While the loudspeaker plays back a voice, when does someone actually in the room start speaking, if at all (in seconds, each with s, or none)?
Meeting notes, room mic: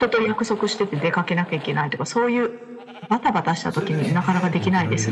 3.6 s